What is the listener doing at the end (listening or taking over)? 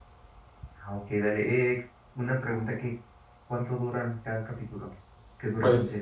taking over